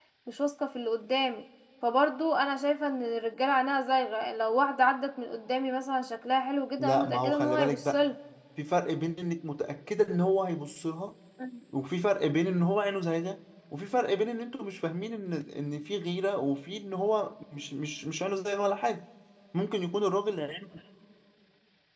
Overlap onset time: 7 s

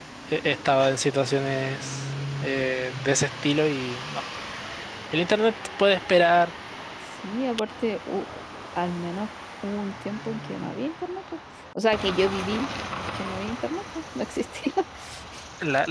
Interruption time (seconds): none

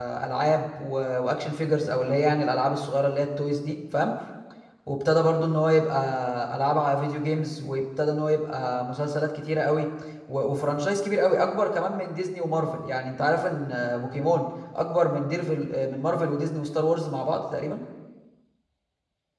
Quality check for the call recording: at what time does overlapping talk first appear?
none

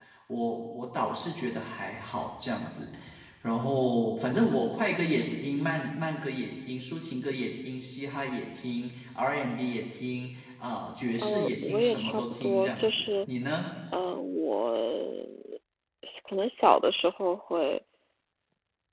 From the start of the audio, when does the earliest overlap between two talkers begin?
11 s

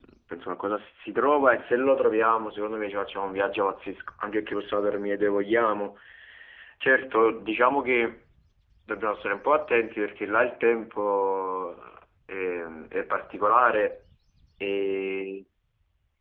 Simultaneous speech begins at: none

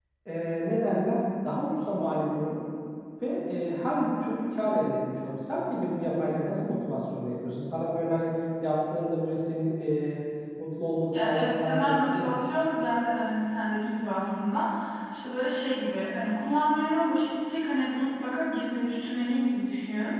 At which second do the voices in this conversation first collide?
11 s

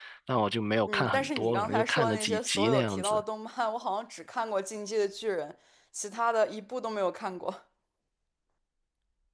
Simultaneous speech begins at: 1 s

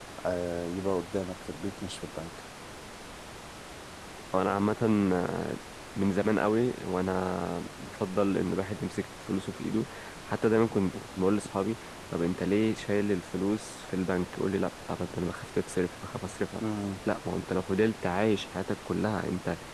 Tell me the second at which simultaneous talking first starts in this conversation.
none

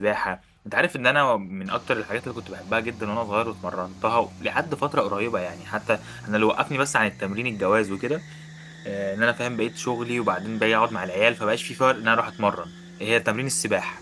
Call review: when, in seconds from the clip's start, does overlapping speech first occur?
none

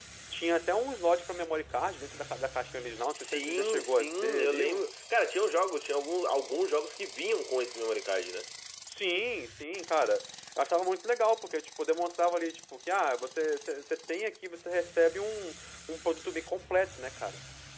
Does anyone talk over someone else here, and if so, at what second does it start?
3 s

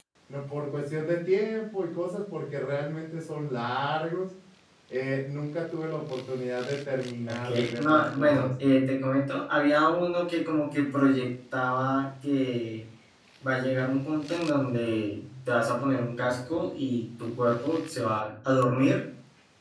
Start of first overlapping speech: 7 s

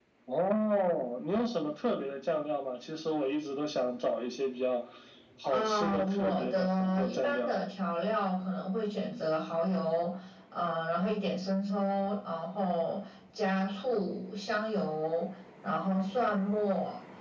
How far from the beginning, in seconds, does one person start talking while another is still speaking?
5 s

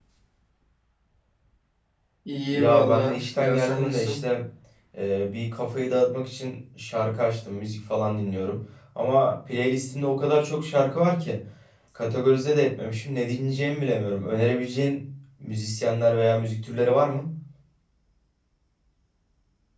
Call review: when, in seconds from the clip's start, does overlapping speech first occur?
3 s

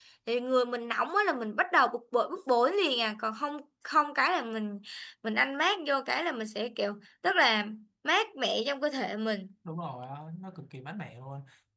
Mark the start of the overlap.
none

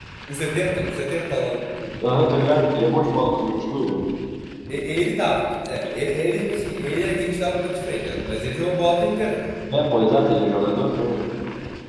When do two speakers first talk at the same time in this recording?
none

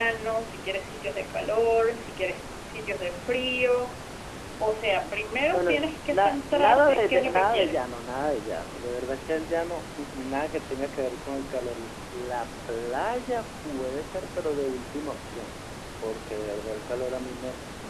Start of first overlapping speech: 5 s

